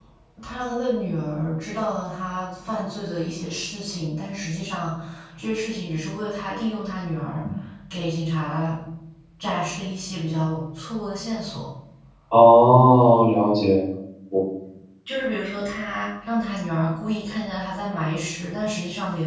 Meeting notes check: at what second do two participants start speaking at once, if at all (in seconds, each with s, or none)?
none